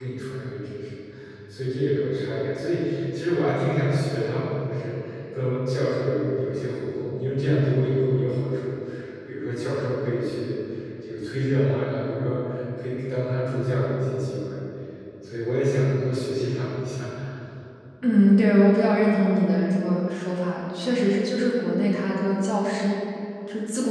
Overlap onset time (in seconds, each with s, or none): none